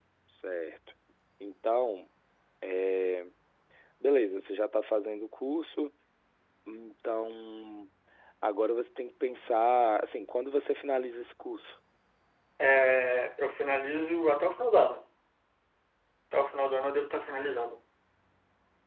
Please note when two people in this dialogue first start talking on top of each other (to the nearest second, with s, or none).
none